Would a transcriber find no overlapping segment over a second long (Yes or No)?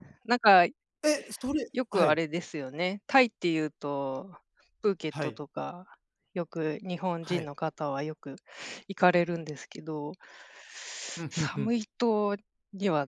Yes